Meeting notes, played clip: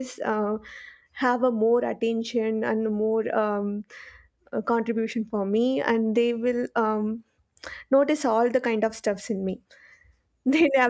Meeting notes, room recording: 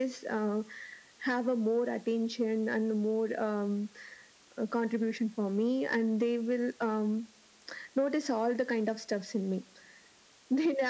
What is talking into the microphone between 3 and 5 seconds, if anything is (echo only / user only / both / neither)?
echo only